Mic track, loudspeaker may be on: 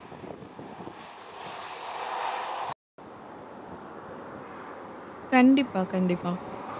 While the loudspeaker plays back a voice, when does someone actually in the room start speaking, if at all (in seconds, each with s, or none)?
5.3 s